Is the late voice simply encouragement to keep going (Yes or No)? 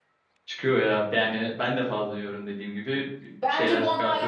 No